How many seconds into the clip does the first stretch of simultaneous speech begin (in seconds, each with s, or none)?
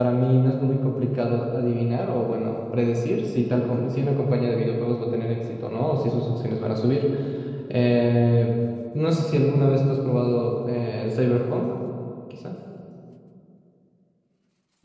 none